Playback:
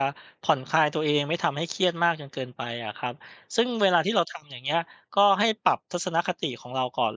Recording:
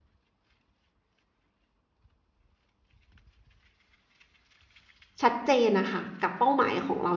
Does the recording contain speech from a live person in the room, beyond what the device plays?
Yes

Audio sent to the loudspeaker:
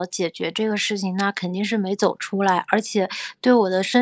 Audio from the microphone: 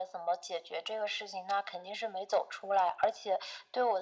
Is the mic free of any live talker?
Yes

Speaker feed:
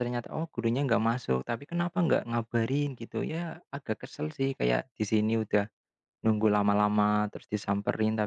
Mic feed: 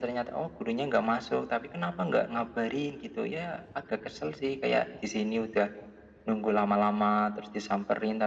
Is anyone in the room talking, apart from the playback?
No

